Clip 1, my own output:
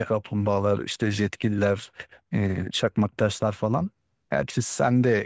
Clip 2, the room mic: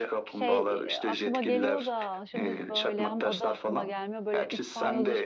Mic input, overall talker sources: both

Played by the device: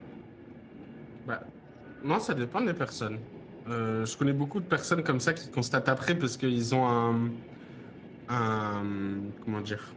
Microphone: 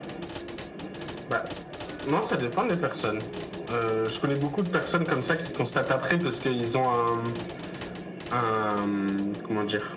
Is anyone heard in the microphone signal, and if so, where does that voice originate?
echo only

